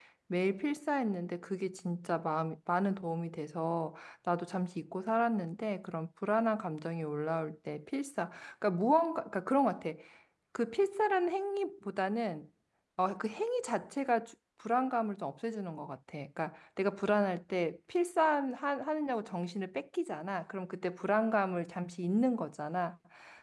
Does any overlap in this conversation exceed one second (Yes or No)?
No